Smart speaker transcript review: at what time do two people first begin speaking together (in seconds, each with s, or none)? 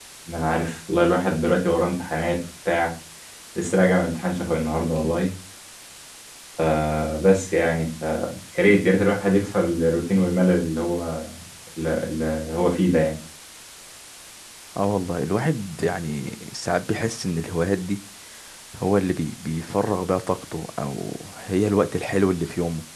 none